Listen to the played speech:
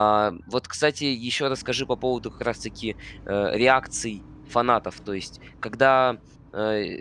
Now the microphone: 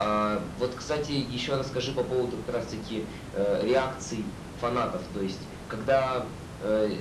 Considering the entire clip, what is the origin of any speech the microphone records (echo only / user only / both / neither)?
echo only